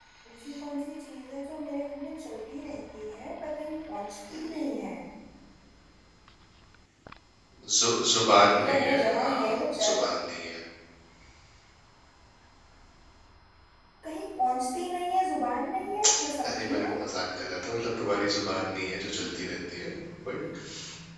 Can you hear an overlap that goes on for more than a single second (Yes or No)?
Yes